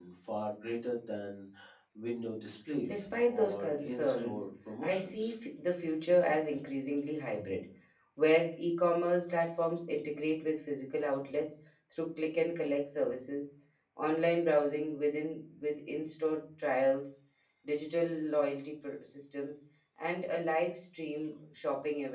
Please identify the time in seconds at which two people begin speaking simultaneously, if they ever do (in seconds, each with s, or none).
2.9 s